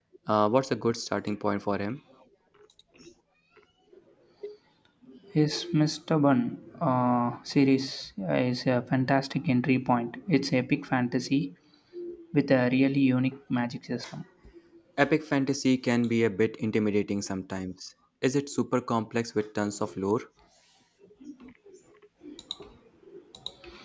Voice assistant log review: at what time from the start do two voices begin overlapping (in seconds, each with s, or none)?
none